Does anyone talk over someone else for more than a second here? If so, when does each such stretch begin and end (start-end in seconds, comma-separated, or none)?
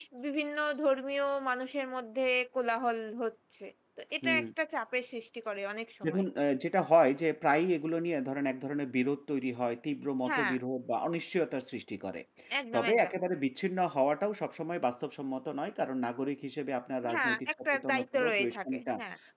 17.1-18.9